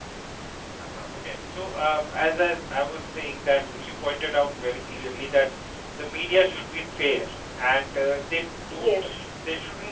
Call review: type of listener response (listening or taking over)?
listening